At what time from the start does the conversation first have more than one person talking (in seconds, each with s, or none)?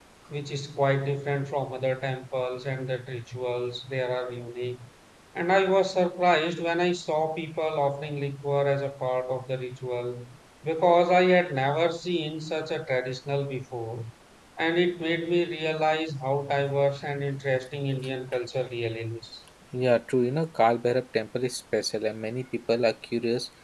none